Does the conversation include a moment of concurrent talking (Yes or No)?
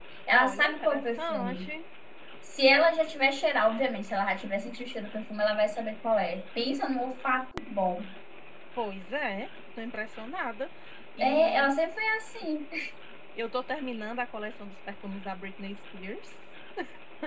Yes